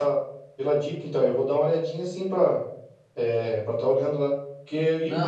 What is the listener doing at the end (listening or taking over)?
listening